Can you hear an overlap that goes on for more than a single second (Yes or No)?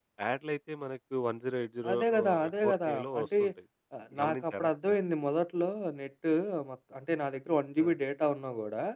Yes